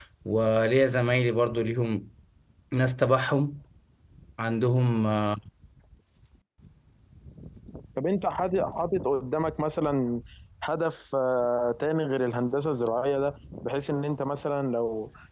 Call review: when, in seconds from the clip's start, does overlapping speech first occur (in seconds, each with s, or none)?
none